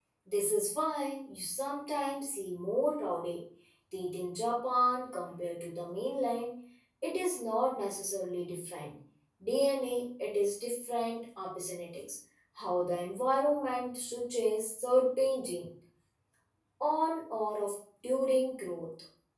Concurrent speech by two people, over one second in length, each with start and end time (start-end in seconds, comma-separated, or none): none